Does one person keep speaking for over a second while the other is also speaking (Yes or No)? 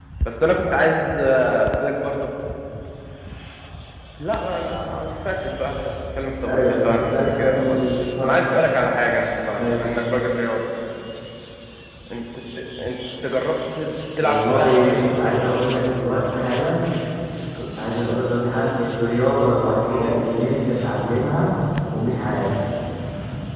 Yes